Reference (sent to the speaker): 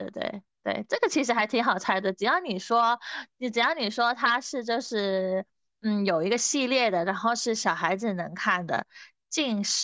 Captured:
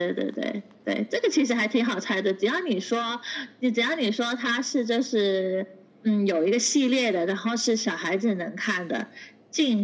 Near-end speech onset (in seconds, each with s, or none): none